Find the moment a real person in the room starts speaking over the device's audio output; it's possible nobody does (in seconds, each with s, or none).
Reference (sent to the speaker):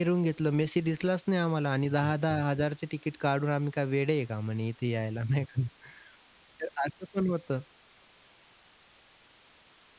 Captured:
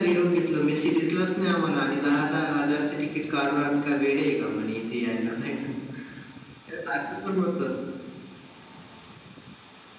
none